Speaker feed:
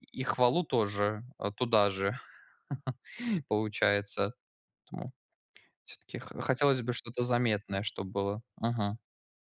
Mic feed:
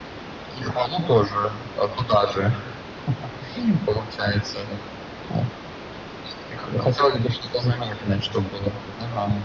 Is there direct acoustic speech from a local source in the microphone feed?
No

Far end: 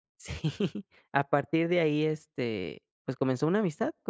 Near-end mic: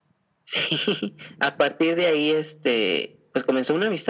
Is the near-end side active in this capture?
No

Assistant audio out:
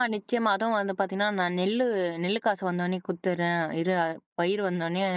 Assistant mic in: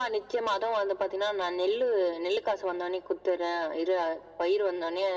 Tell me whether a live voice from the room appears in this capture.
No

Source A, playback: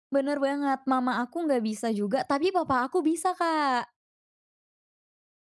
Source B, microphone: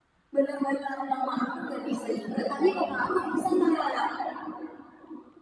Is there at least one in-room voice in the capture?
No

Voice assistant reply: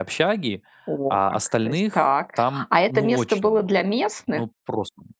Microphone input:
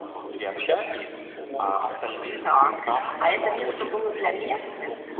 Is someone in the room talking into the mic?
Yes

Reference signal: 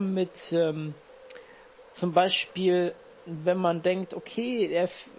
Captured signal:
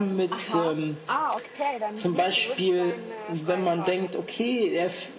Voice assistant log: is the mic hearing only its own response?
No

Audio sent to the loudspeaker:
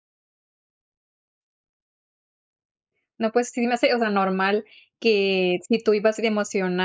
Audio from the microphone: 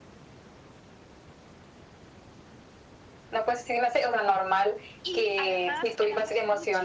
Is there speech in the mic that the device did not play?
Yes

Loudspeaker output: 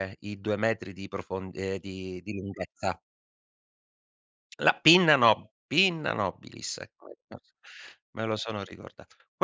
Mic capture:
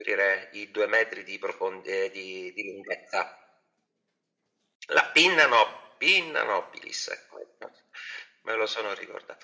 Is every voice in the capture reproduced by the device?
Yes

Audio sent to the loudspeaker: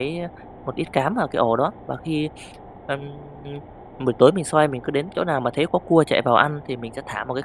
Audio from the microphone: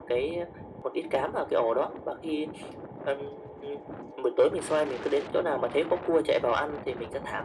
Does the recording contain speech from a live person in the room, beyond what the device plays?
No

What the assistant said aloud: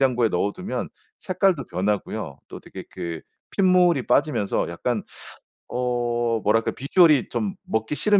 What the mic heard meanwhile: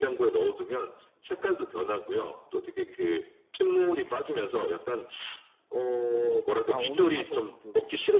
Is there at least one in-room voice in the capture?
Yes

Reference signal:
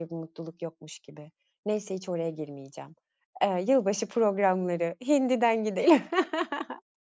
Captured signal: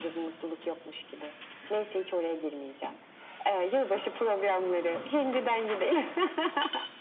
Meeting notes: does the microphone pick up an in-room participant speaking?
No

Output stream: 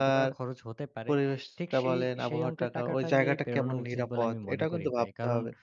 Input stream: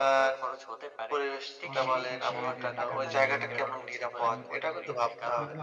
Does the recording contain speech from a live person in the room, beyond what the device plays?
Yes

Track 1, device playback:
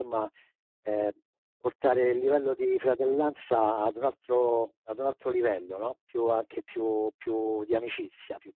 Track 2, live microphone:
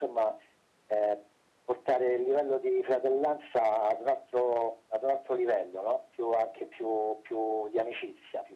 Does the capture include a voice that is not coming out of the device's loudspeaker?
No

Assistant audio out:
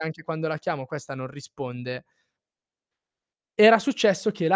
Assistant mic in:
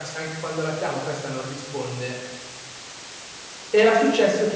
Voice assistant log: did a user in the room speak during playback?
No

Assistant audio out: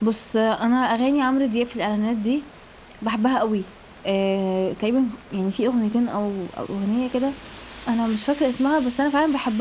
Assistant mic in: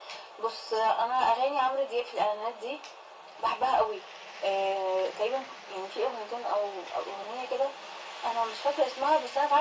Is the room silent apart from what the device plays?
Yes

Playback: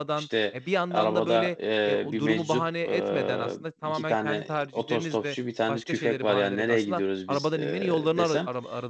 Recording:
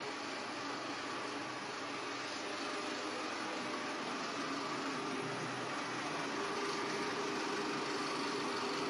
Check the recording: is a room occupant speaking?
No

